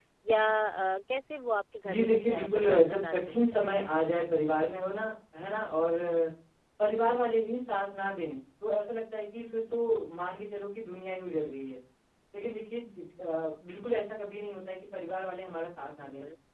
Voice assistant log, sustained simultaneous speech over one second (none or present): present